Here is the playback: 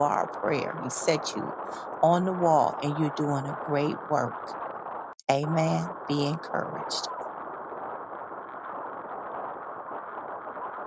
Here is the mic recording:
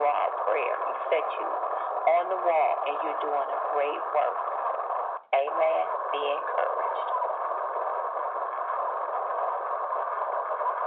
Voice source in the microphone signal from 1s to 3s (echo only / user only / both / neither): echo only